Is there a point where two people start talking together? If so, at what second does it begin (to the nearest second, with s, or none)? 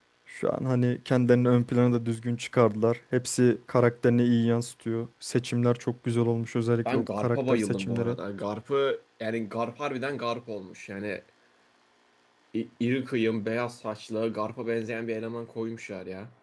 7 s